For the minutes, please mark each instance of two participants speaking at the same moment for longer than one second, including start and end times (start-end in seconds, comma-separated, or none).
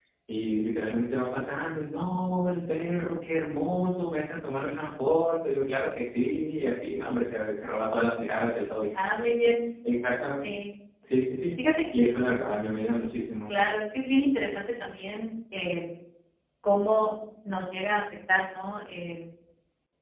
none